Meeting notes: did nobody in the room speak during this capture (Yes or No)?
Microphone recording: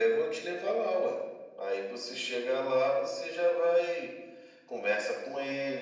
Yes